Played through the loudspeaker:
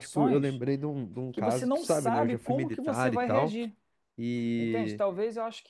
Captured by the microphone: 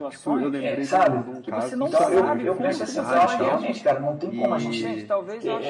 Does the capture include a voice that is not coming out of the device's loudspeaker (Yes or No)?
Yes